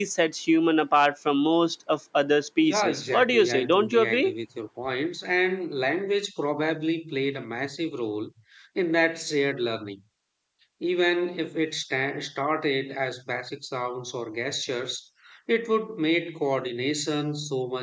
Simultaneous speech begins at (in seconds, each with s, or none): 2.6 s